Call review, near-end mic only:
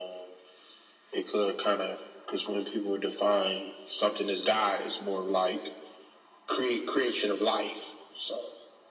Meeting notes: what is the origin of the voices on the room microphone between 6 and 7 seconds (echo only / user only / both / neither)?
echo only